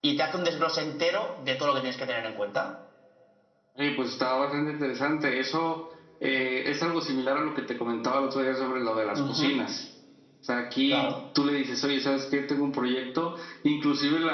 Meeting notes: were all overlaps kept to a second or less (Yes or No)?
Yes